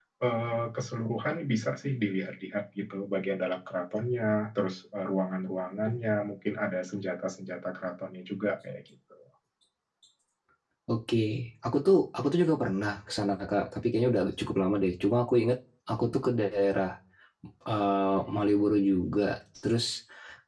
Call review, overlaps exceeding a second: none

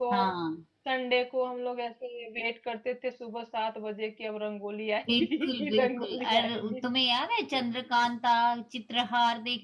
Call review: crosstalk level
present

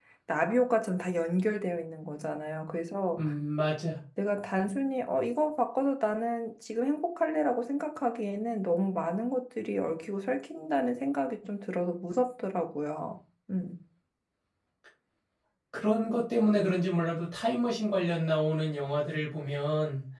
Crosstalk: none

